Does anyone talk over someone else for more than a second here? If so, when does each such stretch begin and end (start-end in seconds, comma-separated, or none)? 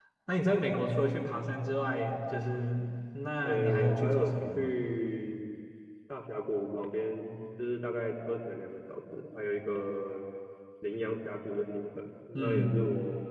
3.4-4.7